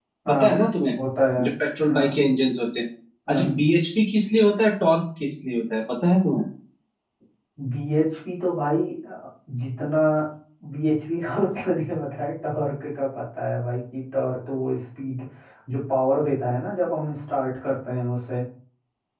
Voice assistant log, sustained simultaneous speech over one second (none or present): none